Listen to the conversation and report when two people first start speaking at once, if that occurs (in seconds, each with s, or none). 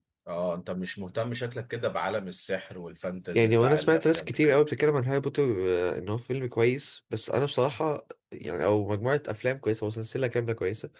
3.3 s